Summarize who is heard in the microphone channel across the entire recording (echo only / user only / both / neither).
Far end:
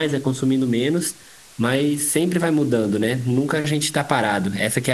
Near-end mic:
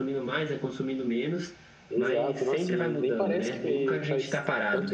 both